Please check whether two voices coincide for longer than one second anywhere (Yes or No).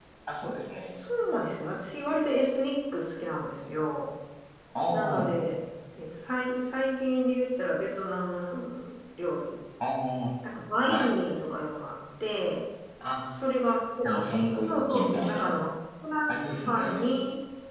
Yes